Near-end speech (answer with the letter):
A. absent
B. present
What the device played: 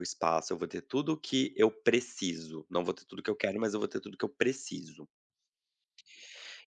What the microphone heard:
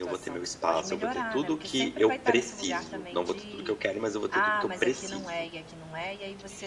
B